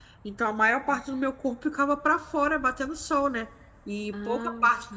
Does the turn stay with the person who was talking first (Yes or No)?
Yes